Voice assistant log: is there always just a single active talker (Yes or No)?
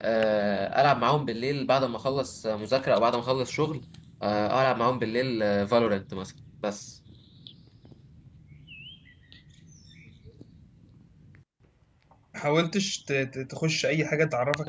Yes